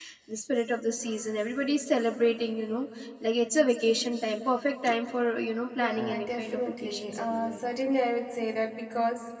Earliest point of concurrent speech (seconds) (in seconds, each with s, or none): 5.8 s